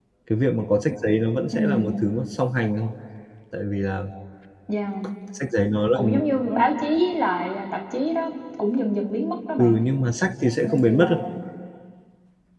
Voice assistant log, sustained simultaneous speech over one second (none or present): none